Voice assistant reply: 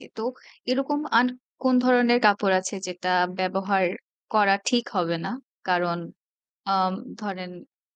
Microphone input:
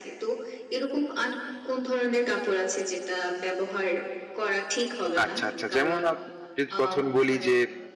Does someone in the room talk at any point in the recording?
Yes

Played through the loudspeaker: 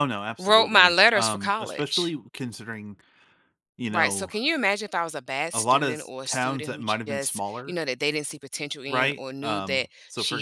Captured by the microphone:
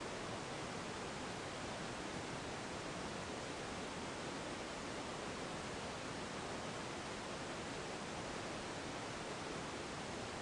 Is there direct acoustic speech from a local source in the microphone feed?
No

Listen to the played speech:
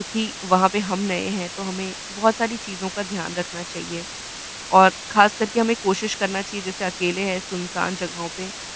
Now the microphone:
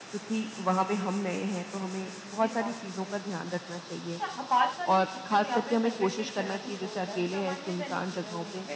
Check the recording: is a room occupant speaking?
Yes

